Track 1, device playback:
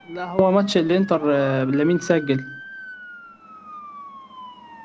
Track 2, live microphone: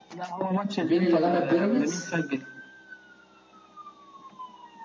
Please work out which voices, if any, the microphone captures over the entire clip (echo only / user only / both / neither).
both